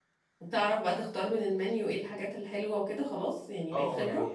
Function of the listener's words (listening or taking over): taking over